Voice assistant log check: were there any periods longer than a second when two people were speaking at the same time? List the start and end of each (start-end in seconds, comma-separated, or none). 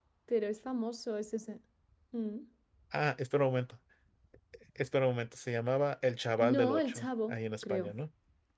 6.4-7.9